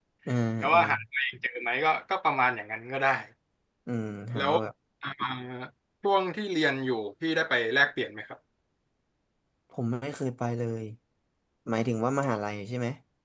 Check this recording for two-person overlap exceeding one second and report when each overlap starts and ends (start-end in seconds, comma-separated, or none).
none